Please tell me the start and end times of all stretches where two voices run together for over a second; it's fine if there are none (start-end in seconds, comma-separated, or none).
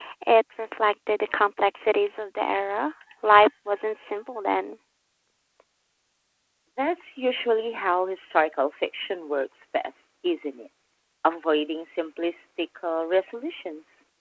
none